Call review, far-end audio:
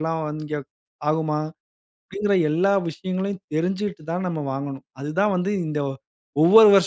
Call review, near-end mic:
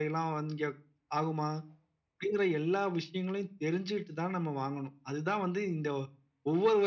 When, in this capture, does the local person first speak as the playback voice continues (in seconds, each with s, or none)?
none